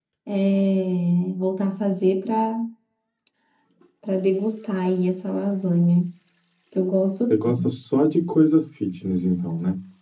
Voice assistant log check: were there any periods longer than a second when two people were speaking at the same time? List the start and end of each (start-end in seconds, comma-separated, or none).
none